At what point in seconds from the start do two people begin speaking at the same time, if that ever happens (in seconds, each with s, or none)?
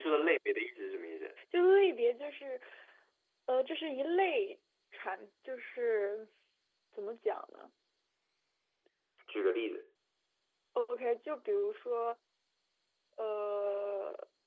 none